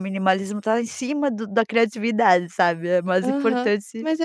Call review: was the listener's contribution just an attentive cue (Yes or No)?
No